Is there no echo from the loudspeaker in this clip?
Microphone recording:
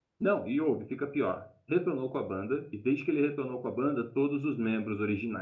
Yes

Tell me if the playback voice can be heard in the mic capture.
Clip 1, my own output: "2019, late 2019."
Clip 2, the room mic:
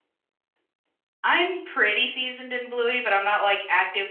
No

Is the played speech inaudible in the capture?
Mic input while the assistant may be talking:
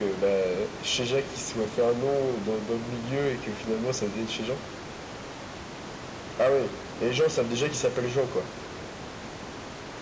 No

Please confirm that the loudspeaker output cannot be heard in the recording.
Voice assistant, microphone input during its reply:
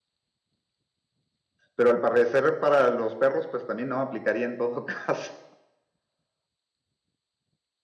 Yes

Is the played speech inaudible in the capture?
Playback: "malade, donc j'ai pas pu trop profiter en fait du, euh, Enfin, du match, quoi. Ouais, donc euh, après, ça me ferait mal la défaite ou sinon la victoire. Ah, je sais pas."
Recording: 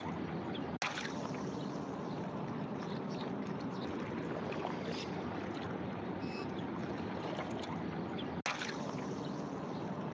Yes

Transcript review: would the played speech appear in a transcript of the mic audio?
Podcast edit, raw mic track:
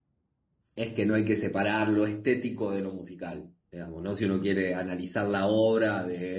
No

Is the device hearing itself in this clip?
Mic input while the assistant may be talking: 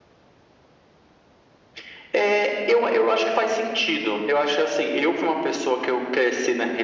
Yes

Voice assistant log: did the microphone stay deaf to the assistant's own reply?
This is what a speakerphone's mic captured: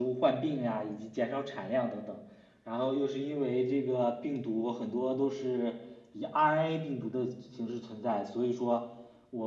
No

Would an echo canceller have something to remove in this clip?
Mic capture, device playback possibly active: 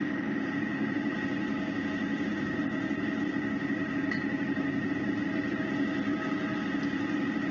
No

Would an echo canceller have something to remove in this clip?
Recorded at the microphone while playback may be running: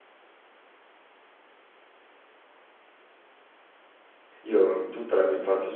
No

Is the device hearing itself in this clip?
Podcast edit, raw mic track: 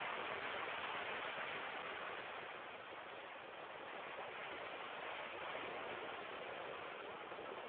No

